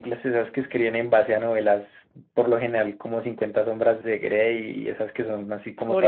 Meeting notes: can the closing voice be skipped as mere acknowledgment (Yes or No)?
No